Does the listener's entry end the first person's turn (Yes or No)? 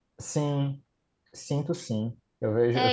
No